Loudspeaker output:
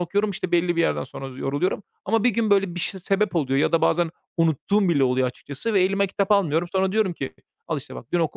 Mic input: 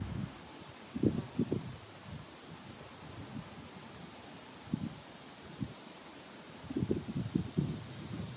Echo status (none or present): none